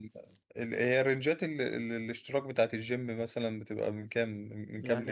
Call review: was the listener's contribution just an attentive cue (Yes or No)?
No